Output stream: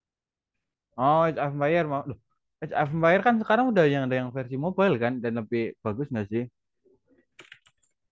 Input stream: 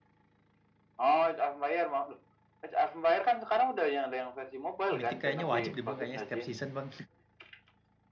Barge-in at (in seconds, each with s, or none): 4.9 s